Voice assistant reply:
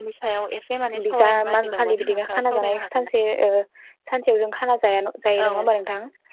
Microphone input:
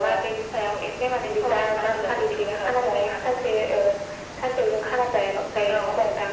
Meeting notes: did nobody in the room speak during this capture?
Yes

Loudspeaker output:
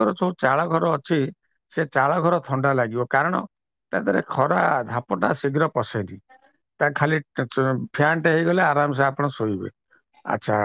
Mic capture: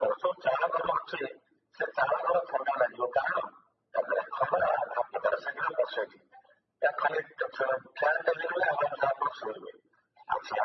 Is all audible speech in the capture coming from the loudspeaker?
Yes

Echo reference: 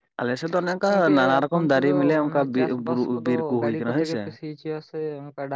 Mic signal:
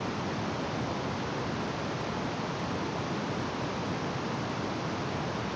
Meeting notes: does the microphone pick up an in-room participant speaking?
No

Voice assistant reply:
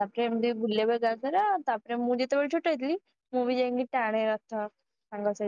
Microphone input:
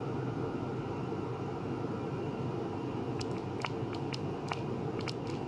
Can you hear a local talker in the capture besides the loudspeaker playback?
No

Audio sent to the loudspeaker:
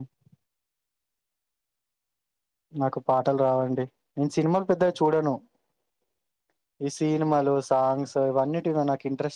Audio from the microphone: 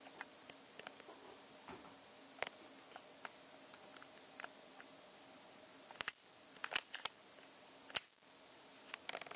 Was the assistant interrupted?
No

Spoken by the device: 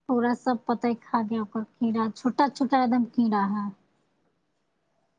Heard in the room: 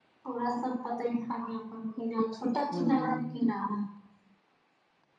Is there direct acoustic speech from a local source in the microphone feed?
Yes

